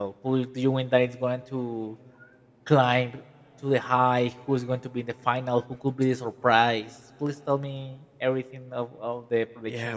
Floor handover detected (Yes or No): Yes